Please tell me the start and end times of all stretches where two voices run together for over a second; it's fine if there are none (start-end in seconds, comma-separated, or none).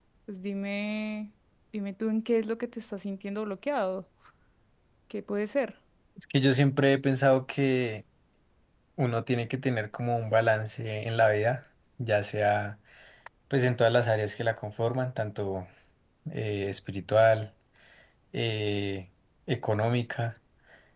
none